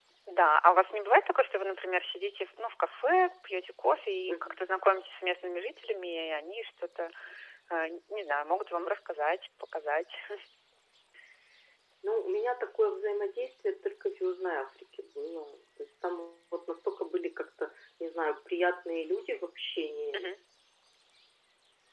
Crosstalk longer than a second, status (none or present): none